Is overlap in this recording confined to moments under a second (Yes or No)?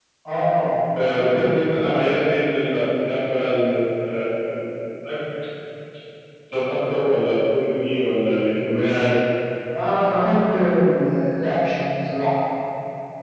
Yes